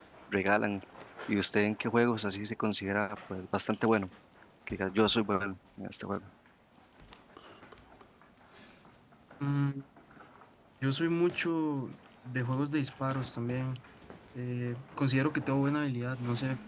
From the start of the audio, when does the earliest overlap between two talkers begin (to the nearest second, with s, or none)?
none